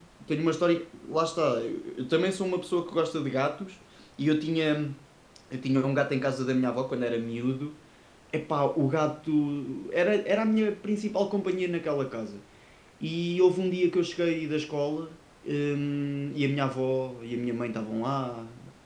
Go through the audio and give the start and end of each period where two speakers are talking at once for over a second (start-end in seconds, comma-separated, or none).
none